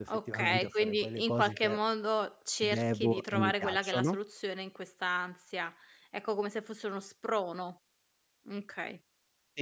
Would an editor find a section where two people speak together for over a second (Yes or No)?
Yes